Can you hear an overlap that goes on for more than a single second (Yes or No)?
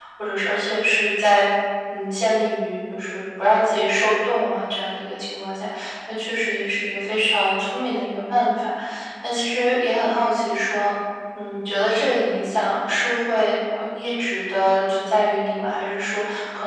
No